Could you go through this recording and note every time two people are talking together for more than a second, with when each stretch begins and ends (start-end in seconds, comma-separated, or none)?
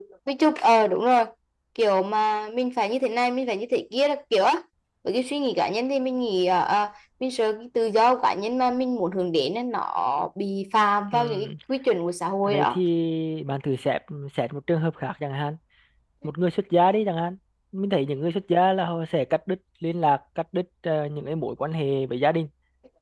none